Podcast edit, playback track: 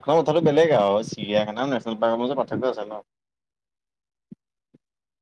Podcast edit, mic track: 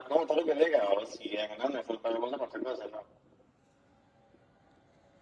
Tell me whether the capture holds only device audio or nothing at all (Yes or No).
Yes